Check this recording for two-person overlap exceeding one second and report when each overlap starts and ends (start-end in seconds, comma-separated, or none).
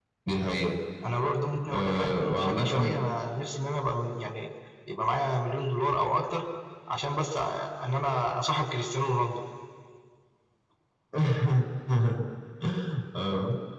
1.7-2.9